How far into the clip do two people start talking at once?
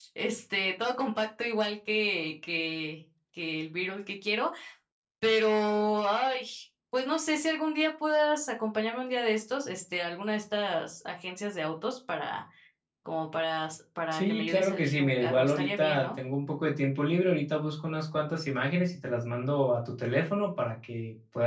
14.1 s

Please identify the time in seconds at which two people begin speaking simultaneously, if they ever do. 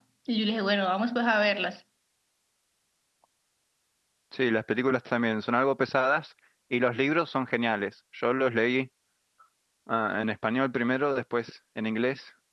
none

